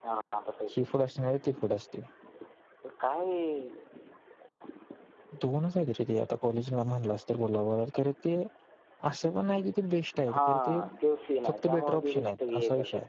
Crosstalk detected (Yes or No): Yes